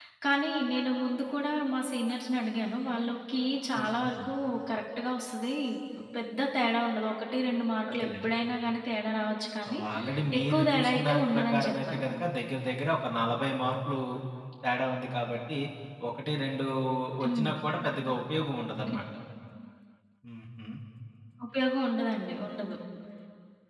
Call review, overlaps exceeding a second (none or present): present